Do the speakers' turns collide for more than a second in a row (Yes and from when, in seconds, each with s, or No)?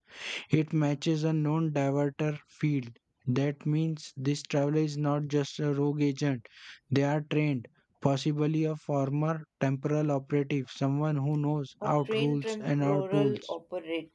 Yes, from 11.8 s